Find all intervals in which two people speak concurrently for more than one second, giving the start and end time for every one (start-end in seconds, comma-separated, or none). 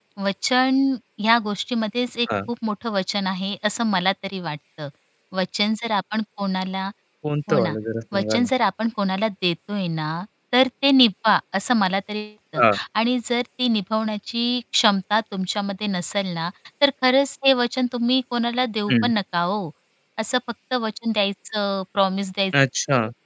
none